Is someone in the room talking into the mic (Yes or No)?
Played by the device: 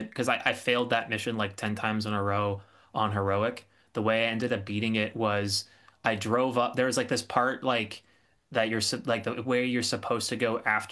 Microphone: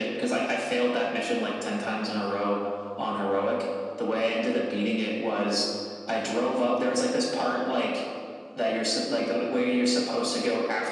No